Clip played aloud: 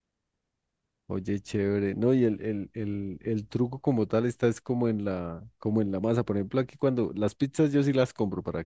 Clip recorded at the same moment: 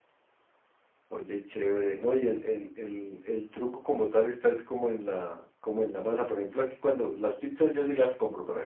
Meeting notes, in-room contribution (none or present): none